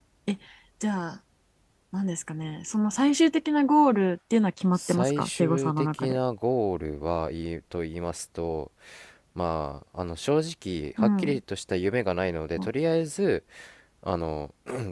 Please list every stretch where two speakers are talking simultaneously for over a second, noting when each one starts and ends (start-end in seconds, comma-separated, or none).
4.8-6.2